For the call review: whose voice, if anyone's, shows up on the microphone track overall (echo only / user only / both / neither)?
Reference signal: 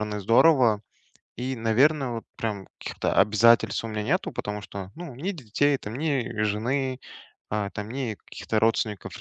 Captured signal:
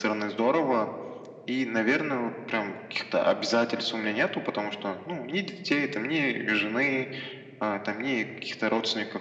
echo only